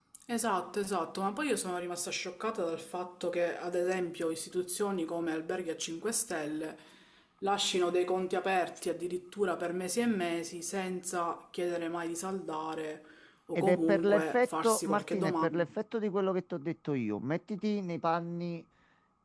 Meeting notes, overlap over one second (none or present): present